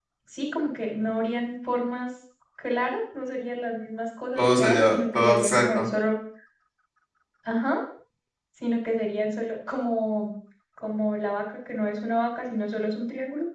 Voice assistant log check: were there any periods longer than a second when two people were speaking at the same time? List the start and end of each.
4.3-5.9

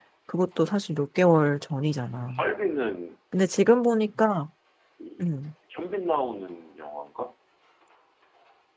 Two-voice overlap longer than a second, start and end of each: none

